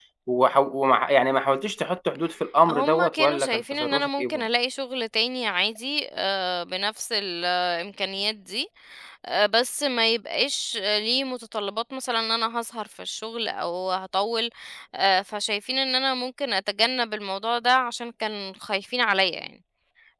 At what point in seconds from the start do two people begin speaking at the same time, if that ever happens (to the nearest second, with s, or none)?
3 s